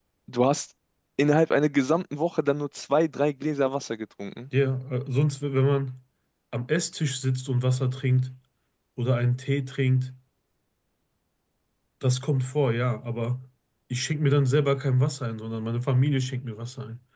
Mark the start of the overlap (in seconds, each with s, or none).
none